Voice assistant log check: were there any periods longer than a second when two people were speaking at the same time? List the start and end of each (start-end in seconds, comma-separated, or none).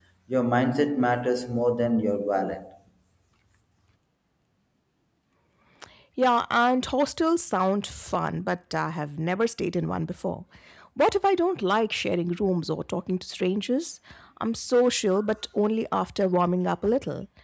none